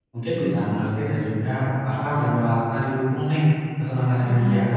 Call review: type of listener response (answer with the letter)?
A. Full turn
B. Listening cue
B